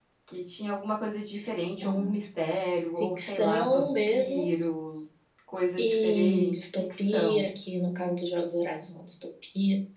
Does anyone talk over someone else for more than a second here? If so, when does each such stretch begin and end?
3.0-4.5, 5.8-7.5

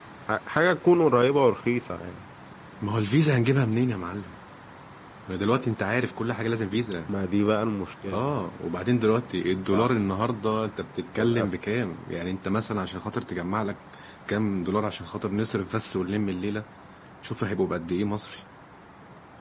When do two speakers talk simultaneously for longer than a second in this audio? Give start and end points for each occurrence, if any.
none

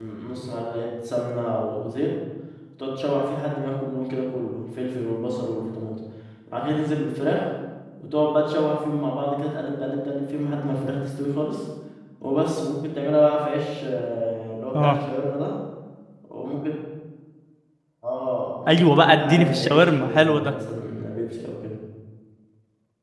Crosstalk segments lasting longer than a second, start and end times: 18.7-20.5

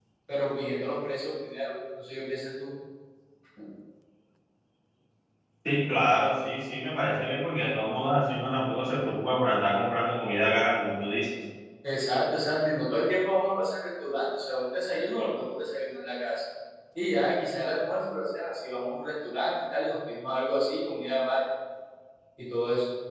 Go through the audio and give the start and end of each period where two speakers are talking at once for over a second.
none

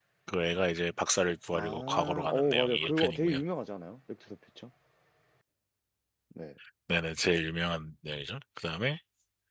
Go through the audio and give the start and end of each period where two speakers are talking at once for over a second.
1.5-3.4

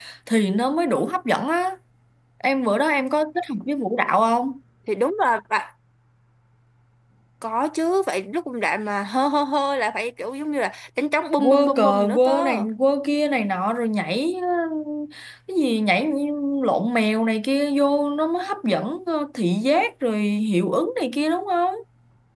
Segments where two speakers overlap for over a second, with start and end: 11.4-12.6

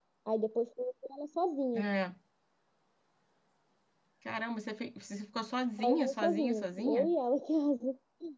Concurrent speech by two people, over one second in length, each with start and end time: 5.8-7.1

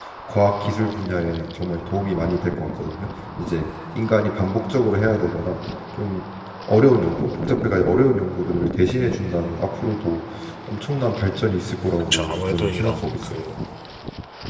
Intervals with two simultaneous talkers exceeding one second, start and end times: 12.1-13.4

